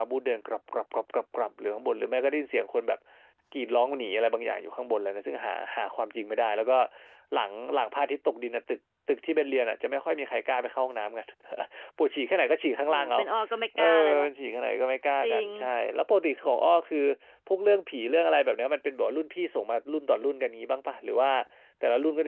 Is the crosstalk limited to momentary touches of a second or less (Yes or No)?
Yes